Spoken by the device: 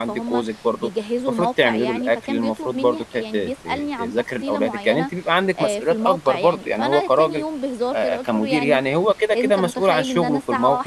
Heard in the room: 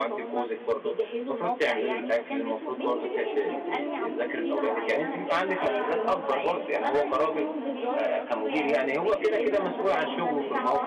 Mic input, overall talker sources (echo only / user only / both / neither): both